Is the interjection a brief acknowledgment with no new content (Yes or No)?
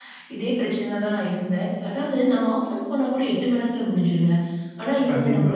Yes